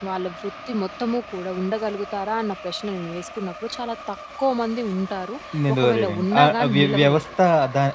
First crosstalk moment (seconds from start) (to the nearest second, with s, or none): 6 s